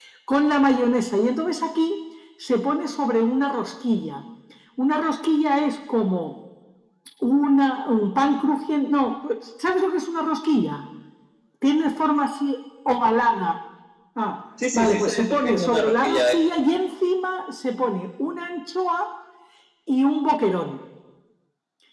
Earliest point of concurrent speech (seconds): 15 s

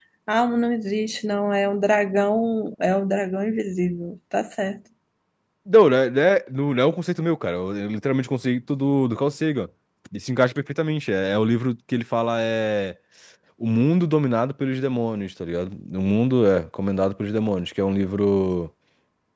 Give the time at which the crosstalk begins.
none

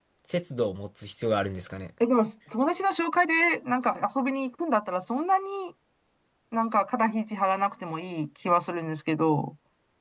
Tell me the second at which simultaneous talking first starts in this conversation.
none

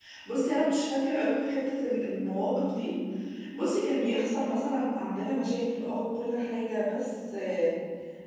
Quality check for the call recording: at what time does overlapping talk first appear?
none

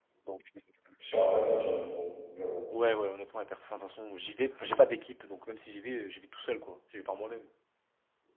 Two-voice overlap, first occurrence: none

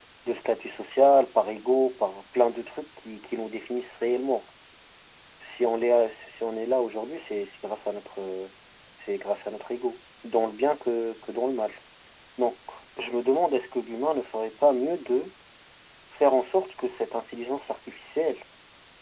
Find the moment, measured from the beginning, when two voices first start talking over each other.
none

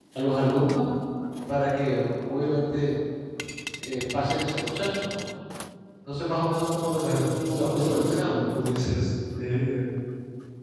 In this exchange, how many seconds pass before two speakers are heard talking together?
7 s

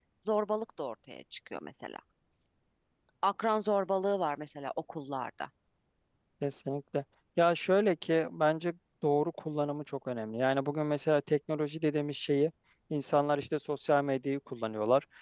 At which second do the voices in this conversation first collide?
none

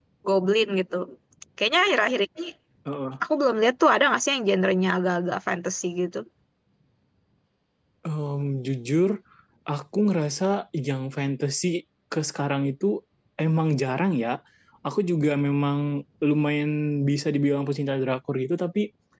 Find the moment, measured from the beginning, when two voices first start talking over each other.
none

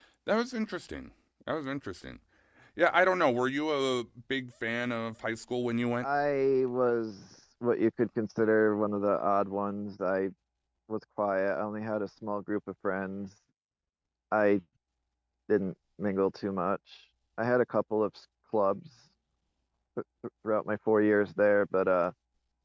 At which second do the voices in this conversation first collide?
none

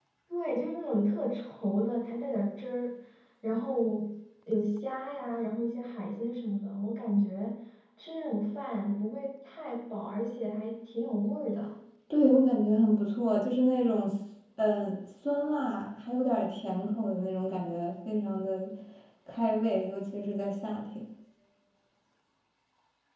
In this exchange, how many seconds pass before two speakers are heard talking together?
none

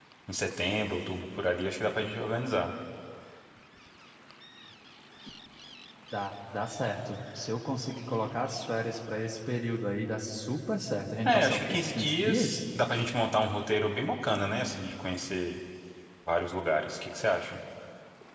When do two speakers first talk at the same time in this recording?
11 s

